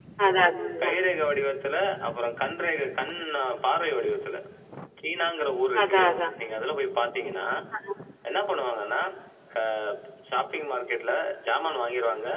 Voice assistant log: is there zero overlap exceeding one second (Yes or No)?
Yes